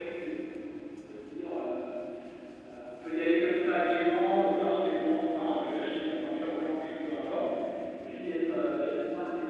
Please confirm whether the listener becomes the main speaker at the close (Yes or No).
No